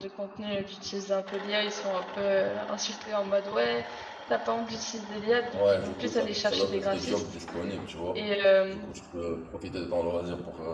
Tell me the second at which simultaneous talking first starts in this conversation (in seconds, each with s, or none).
5.5 s